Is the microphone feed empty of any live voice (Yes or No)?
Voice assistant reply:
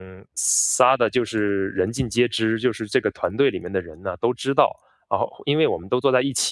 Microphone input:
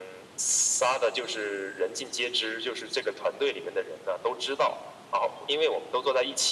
Yes